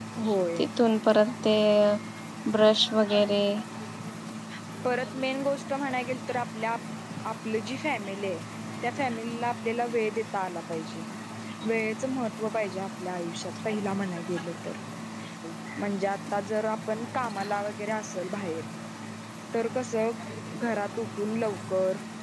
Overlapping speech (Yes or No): No